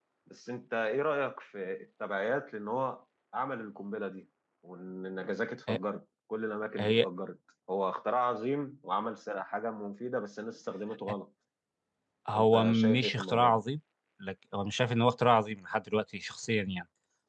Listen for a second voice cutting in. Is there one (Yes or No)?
Yes